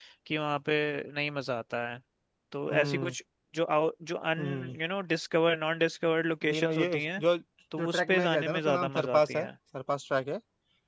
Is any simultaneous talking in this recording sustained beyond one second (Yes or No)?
Yes